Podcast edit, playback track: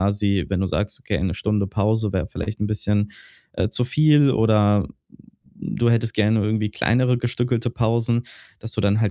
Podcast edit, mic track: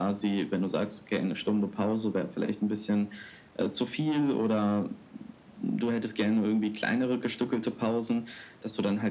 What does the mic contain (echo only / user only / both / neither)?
echo only